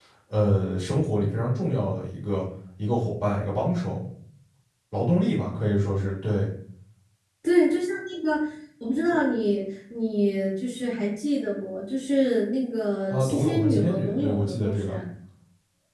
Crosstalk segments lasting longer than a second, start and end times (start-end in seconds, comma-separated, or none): 13.1-15.0